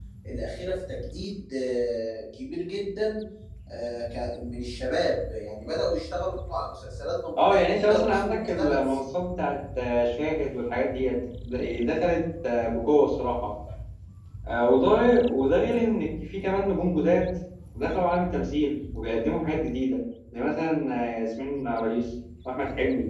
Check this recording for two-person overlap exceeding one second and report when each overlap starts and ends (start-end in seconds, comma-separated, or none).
7.4-9.0